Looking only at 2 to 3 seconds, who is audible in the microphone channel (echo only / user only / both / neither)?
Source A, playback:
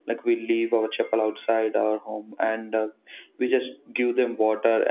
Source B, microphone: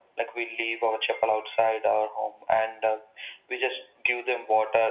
echo only